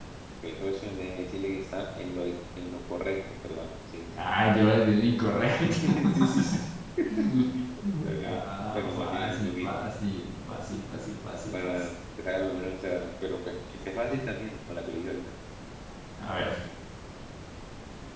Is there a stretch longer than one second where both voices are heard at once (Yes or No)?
Yes